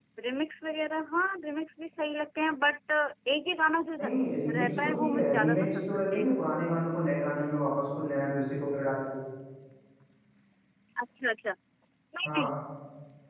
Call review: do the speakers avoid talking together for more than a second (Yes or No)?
No